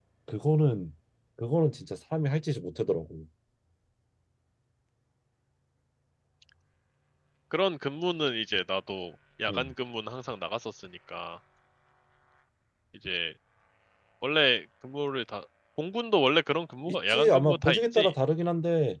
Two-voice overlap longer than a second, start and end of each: 16.9-18.1

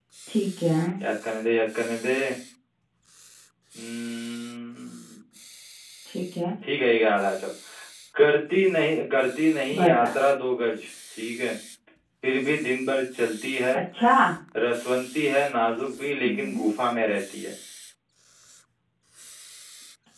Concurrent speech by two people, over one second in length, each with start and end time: none

